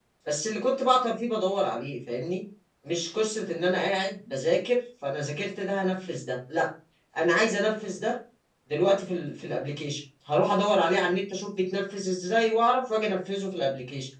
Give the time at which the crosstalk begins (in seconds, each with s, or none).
none